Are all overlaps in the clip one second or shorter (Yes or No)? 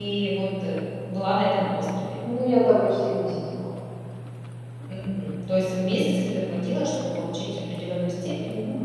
Yes